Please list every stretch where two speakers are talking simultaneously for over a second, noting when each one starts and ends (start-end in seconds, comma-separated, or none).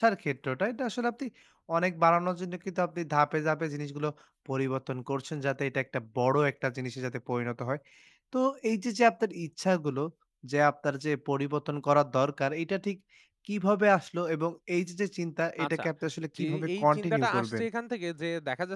16.4-17.6